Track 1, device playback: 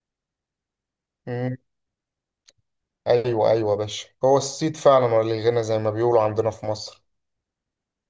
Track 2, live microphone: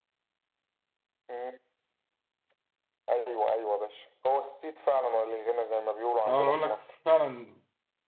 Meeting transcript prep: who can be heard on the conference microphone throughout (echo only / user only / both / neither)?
both